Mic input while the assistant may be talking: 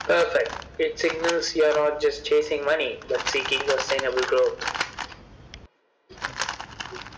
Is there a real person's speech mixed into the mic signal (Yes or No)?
No